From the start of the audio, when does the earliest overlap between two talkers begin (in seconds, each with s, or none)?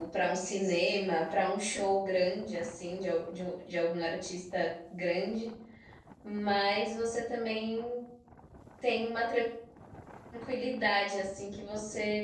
none